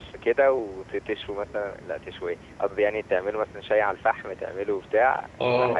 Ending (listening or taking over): taking over